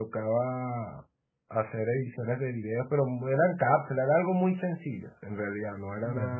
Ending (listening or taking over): listening